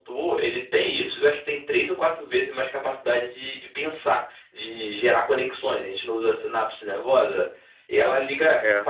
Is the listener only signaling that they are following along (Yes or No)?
Yes